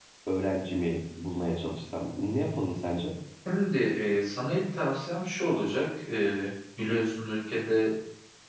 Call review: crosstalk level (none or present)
none